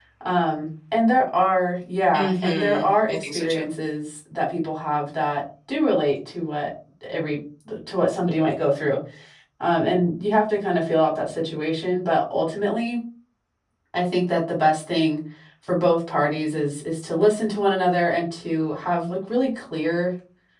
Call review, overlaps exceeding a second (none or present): present